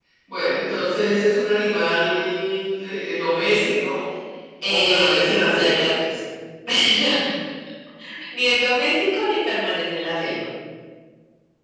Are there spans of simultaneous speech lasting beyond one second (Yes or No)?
Yes